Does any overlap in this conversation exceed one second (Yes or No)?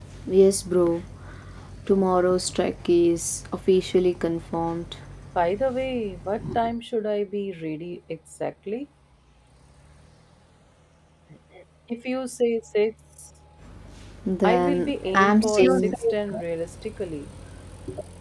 Yes